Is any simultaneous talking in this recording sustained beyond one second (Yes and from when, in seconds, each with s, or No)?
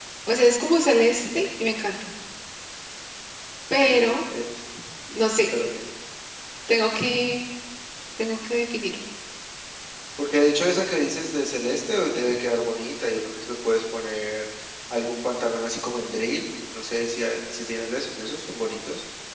No